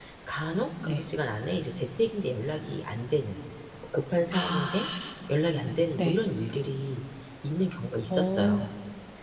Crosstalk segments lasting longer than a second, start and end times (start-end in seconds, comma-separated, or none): none